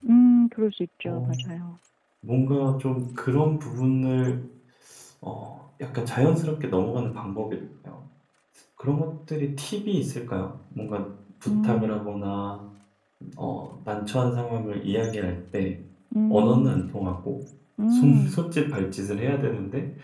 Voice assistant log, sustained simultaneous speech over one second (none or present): none